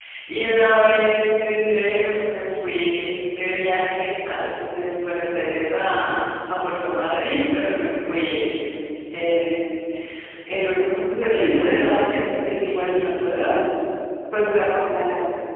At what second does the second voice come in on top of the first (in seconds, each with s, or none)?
11.2 s